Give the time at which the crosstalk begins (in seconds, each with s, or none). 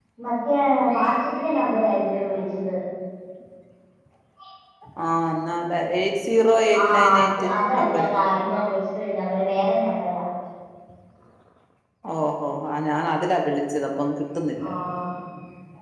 6.7 s